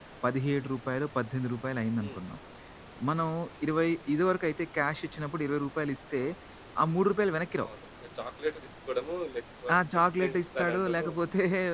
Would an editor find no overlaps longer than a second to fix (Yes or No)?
No